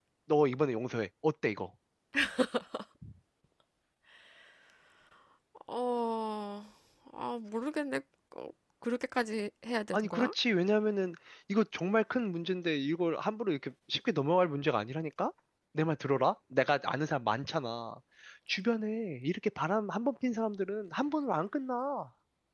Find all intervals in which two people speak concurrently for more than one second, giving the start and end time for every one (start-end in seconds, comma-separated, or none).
none